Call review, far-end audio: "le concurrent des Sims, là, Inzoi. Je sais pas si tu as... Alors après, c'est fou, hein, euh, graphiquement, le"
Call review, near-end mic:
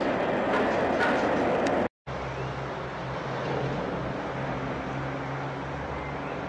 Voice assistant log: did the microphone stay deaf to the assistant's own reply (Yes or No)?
Yes